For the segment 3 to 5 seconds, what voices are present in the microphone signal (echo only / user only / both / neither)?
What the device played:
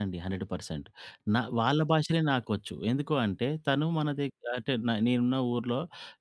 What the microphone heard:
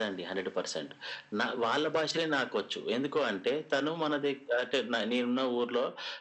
echo only